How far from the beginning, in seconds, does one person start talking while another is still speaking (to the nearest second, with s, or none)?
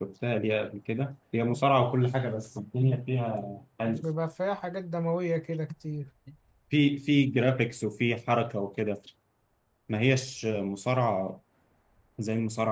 none